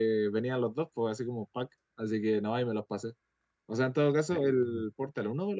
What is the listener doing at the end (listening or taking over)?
listening